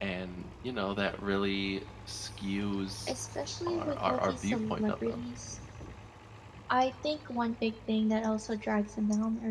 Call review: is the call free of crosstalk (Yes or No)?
No